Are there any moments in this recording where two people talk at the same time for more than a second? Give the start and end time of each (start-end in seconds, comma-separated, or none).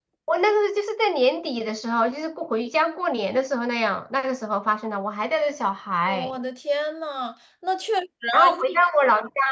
none